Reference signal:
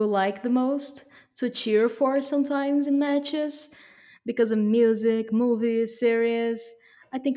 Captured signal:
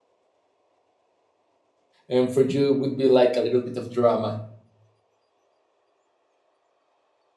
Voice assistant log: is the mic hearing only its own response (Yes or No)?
No